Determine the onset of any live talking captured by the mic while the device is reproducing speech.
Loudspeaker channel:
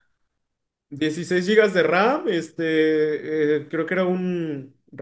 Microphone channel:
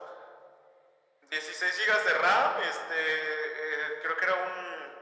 none

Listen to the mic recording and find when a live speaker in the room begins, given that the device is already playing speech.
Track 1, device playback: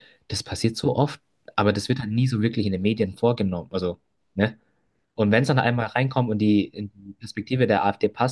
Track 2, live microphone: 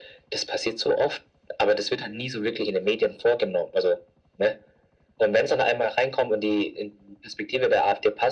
none

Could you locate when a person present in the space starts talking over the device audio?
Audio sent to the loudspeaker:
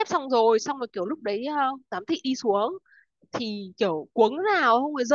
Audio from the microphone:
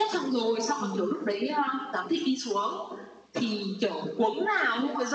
1 s

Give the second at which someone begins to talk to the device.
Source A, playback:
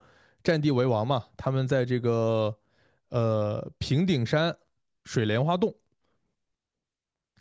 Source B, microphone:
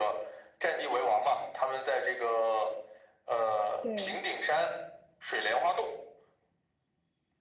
4 s

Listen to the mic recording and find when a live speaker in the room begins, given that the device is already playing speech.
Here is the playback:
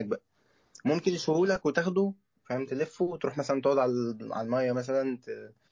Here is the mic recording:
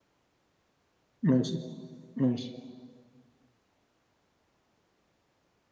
1 s

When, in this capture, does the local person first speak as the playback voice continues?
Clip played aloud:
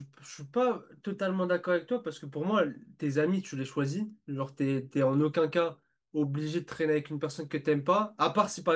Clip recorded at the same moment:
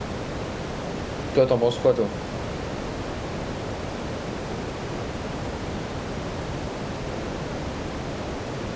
1 s

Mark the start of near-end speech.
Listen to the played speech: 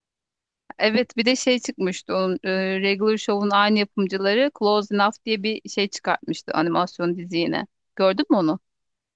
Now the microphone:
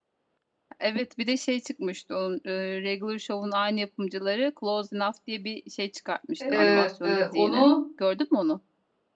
6 s

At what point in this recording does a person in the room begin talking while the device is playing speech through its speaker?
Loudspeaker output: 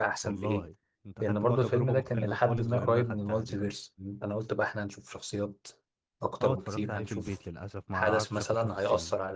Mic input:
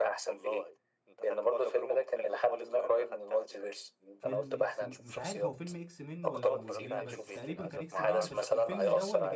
4 s

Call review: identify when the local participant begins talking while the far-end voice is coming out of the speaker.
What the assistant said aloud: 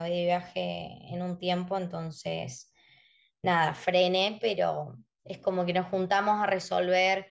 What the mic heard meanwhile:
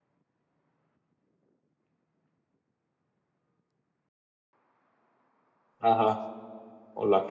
6 s

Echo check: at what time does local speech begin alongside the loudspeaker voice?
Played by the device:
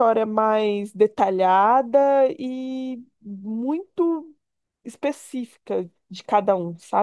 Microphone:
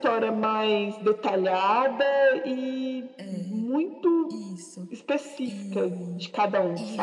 3 s

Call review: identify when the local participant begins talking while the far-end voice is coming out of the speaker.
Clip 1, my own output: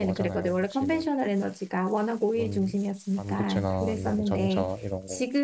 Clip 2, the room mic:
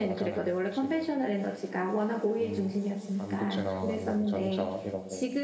none

